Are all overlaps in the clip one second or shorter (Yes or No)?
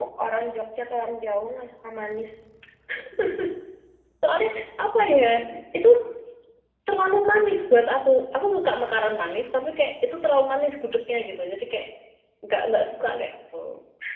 Yes